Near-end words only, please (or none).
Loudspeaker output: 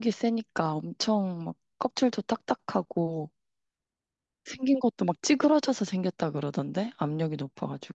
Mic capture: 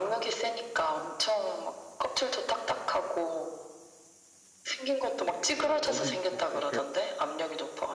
어, 어디 막 이렇게